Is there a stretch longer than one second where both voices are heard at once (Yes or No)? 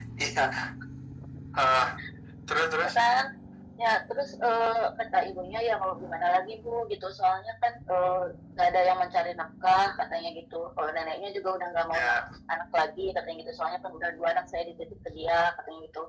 No